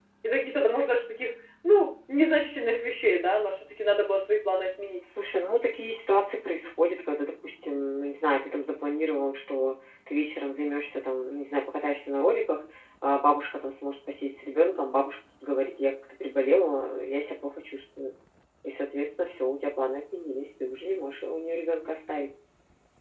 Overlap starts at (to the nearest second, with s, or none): none